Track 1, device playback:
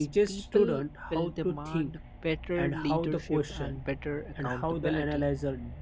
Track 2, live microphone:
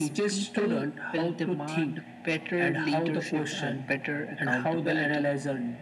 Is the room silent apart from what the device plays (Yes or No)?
Yes